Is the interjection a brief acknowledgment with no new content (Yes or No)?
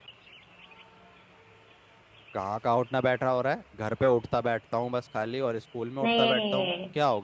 No